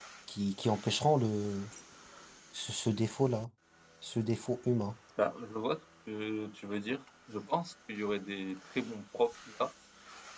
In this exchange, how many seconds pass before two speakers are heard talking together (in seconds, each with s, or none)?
none